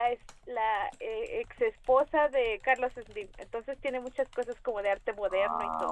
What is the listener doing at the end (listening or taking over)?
taking over